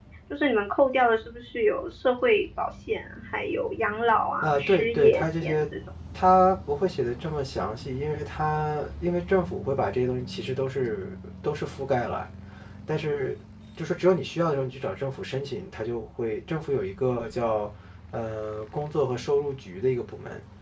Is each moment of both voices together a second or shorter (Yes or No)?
No